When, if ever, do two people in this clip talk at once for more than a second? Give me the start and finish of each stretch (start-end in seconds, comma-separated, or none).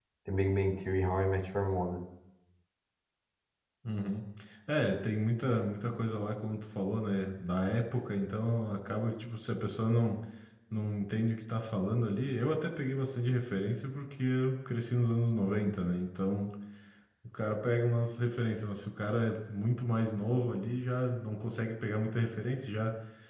none